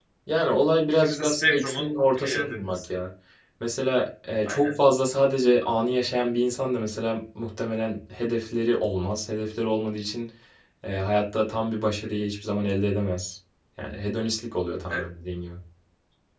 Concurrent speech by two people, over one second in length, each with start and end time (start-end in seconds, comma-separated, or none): 0.9-2.9